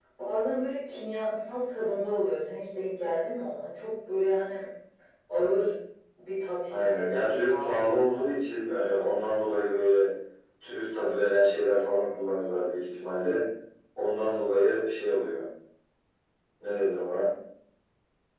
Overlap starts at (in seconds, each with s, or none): 6.7 s